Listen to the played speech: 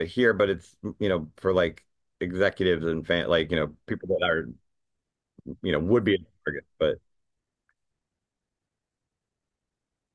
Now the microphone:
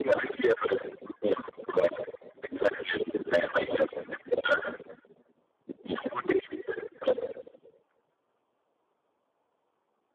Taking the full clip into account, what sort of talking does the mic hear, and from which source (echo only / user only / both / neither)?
echo only